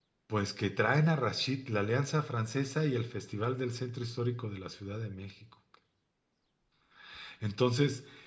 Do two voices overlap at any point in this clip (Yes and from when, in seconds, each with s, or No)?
No